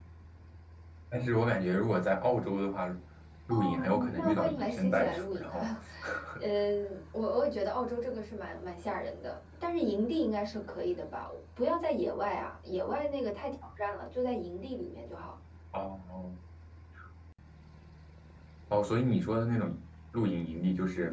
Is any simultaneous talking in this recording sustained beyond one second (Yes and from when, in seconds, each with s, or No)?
Yes, from 3.5 s